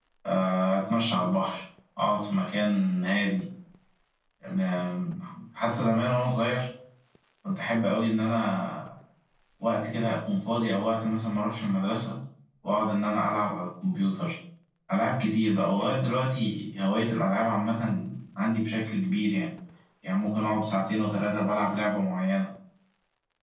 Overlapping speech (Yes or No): No